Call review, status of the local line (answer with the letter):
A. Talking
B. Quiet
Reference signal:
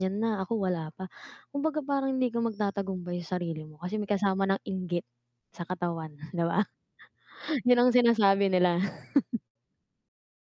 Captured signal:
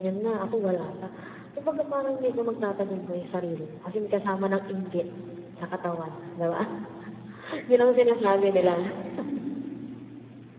B